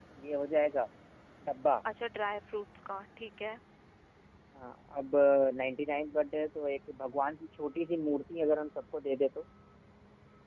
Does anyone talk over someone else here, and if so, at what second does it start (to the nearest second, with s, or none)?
none